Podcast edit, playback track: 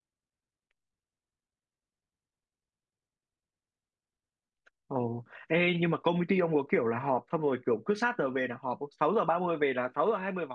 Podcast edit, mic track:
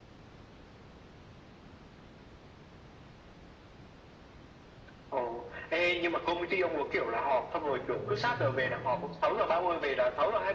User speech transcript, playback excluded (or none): ông cũng hay làm thứ bảy lắm.